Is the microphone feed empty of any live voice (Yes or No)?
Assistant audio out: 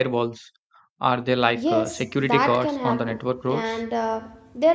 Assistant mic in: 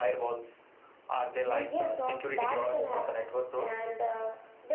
No